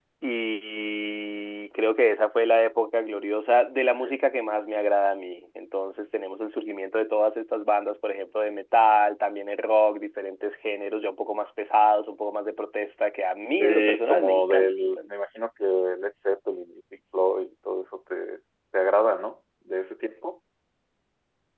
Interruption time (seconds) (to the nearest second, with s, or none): 14 s